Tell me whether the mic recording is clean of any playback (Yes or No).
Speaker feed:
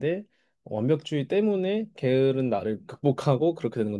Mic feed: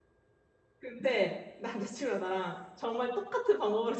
Yes